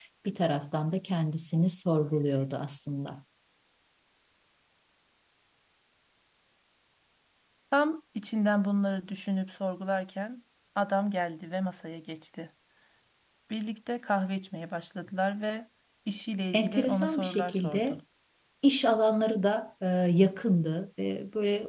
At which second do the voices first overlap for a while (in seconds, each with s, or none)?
16.5 s